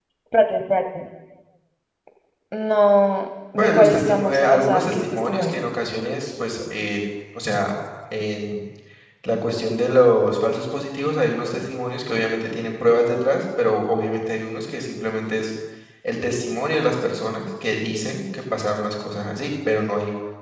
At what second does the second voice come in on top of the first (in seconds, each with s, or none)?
3.6 s